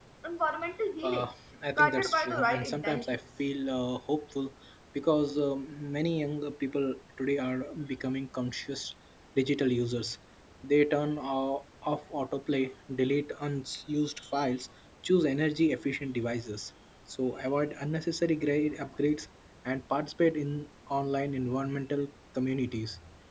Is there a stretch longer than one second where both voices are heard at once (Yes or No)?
Yes